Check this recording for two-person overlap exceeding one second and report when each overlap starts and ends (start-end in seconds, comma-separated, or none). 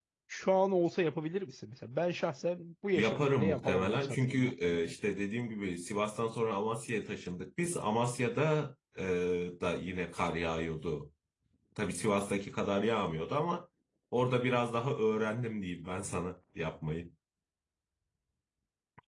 3.0-4.9